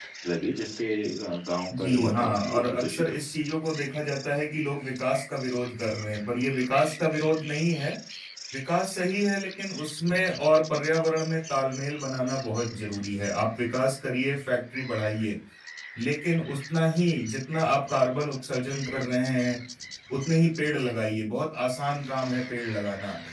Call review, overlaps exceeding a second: present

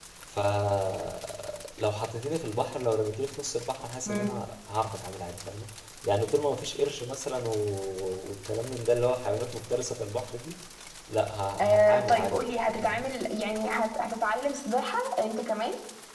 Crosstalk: present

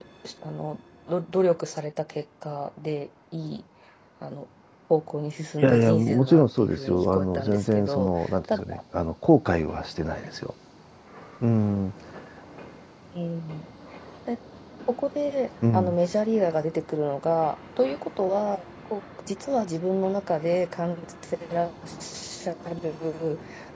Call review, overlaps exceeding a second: present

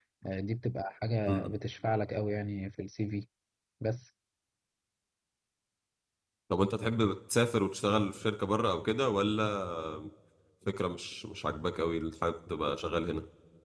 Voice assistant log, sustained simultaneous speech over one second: none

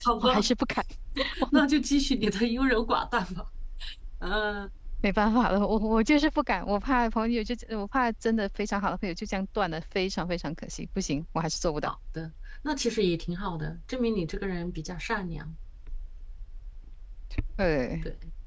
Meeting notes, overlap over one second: none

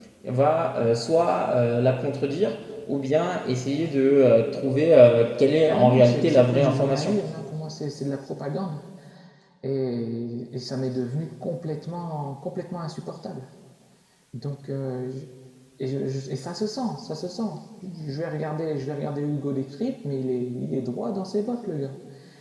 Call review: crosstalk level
present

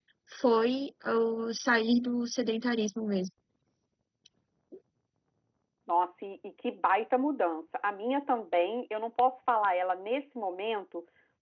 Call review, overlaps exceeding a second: none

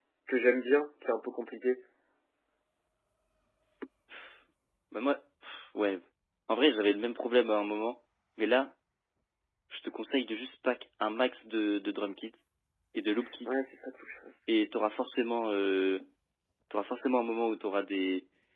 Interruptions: none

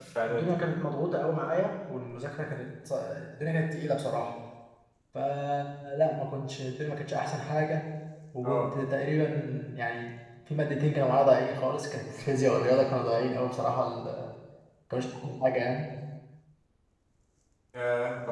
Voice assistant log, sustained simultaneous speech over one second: none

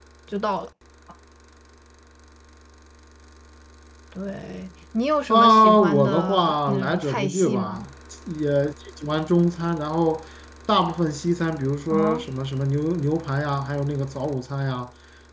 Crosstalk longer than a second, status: present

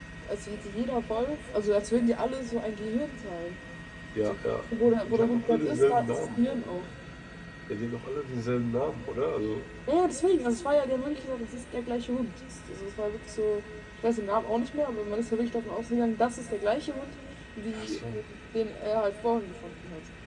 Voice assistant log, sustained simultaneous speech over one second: present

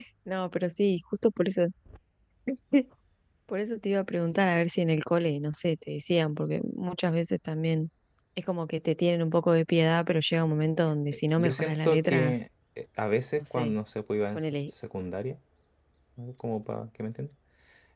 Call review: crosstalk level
present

